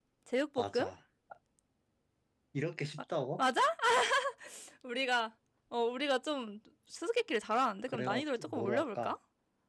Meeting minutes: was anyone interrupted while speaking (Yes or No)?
Yes